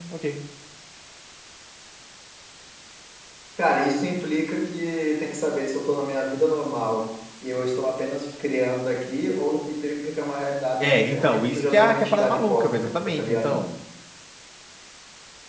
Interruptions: present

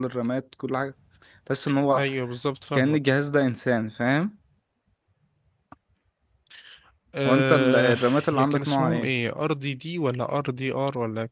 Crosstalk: present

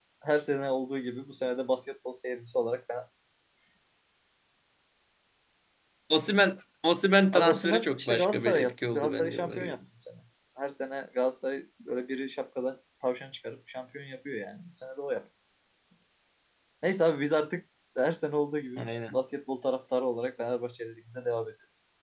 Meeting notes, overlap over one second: present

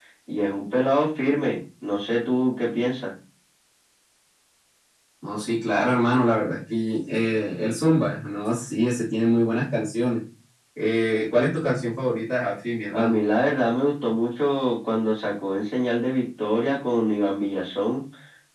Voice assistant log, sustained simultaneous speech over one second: none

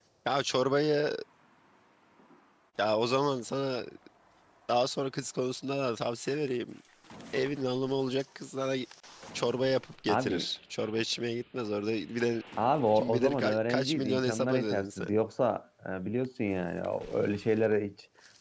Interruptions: present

